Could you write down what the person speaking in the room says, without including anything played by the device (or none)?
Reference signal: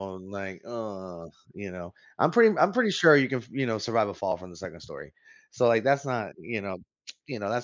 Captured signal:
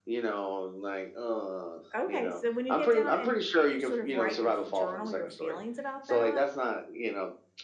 Okay, so when you get down and f sort of write your f journal your feelings about that,